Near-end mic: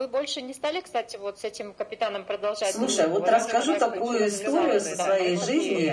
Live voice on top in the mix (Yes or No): Yes